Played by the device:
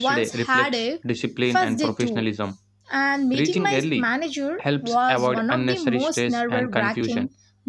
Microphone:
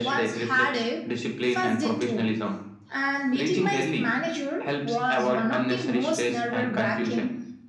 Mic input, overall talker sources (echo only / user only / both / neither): echo only